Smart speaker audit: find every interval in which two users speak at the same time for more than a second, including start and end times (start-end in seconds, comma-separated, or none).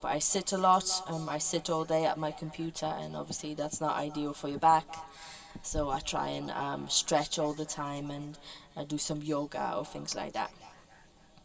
none